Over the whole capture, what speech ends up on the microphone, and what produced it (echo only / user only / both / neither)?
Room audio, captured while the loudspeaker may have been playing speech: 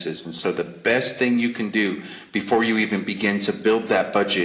echo only